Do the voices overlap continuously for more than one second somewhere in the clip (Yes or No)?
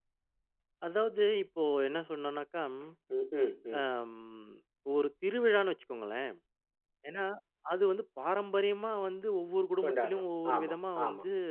Yes